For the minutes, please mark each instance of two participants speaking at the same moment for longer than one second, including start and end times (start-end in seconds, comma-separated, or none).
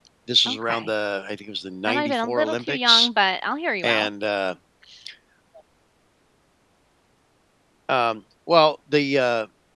1.8-3.1